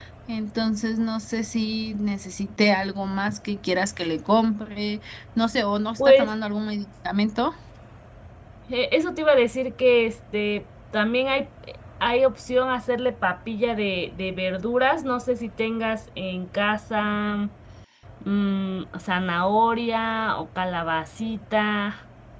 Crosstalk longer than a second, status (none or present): none